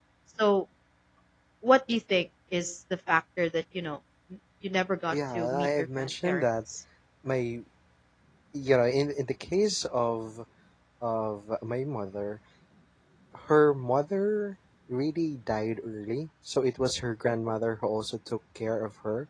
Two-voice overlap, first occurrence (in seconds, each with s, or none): 5.1 s